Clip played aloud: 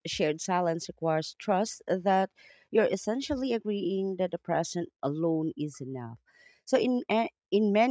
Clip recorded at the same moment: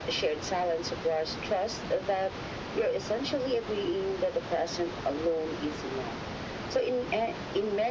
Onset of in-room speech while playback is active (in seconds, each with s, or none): none